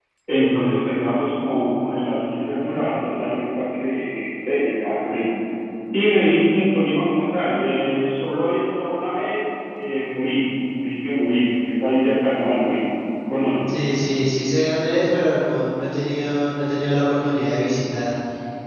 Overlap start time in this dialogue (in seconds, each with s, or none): none